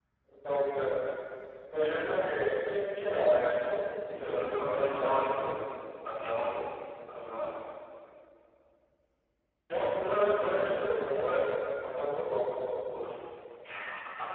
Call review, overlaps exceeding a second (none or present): present